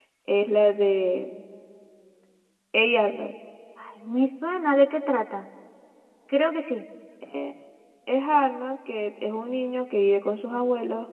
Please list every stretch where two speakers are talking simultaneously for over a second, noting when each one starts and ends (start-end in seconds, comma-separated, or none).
none